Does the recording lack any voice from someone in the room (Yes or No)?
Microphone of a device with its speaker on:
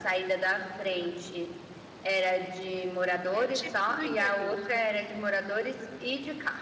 No